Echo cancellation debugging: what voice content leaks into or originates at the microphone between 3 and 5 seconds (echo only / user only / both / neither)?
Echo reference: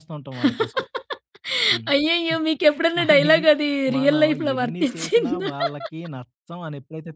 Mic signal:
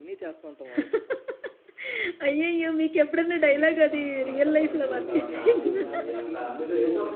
both